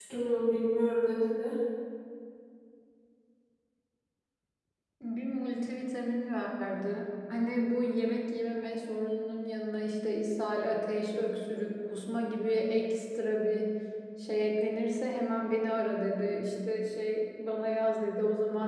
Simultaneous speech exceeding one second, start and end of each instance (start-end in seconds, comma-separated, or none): none